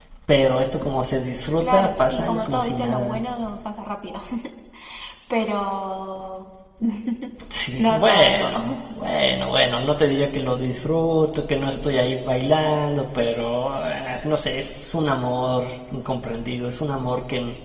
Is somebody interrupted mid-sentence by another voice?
Yes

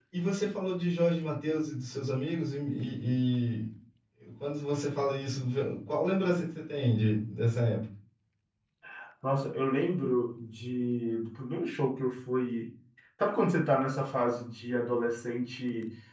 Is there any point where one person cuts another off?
No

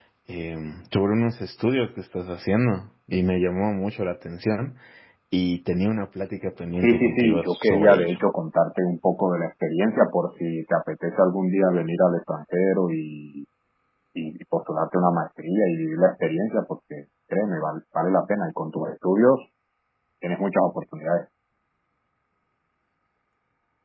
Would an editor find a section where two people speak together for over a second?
Yes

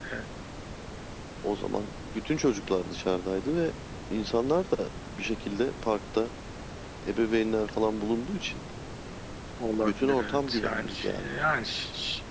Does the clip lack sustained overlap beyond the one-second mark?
No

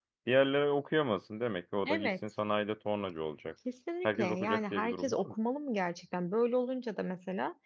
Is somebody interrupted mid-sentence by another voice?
Yes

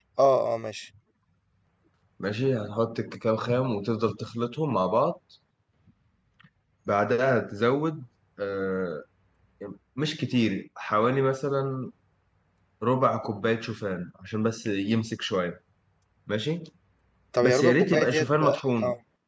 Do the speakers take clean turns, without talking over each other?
No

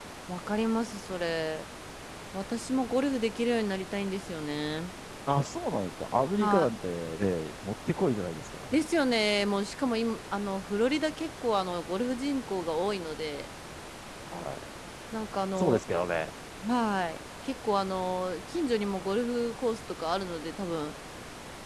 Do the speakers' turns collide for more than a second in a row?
No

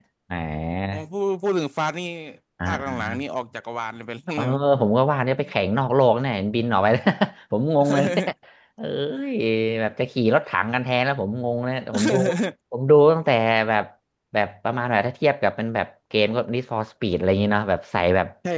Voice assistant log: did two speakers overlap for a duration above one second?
No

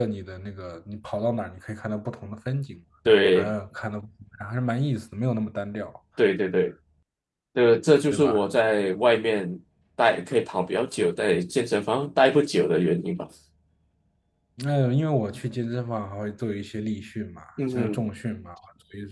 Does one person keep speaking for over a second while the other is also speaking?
No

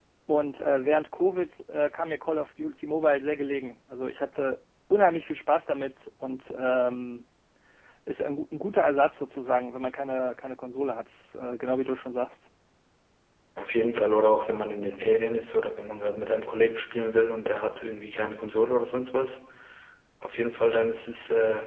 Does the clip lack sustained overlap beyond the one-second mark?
Yes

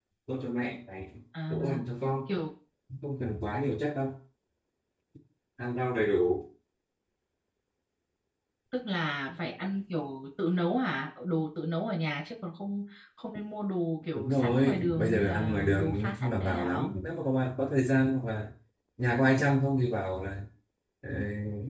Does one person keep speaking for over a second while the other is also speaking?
Yes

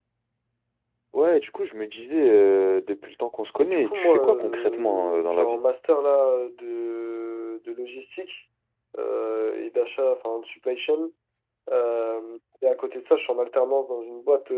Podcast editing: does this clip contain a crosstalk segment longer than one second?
Yes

